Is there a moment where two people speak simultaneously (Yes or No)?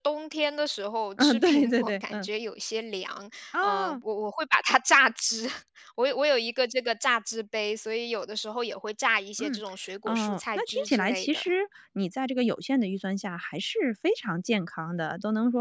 Yes